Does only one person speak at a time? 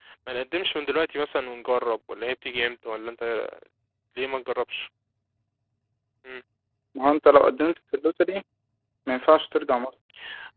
Yes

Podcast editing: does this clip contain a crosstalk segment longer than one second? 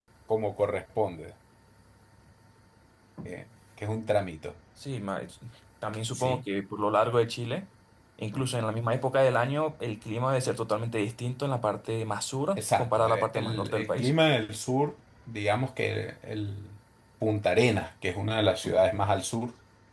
Yes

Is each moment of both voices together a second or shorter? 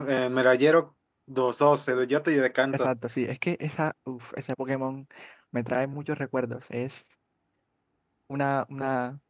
Yes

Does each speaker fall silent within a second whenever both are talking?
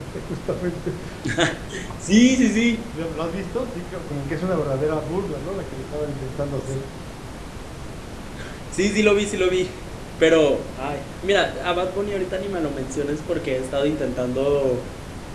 Yes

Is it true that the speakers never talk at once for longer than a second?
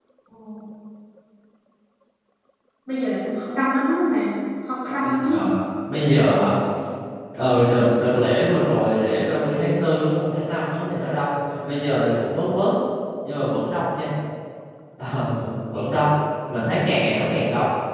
Yes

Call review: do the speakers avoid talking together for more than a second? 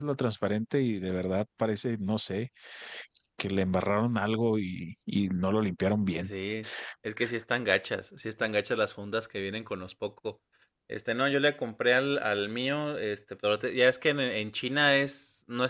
Yes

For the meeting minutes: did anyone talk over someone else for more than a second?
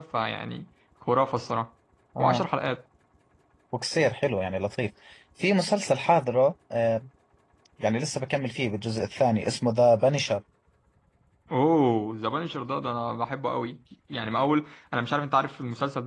No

